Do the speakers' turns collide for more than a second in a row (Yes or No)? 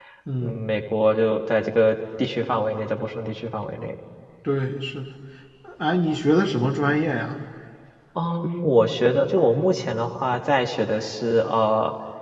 No